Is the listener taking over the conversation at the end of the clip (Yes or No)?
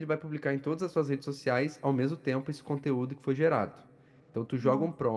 No